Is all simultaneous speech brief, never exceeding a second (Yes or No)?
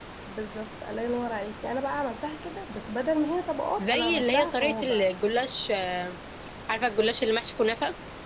No